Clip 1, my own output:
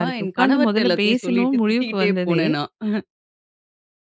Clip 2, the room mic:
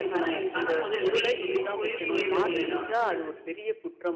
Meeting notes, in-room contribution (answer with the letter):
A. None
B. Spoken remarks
B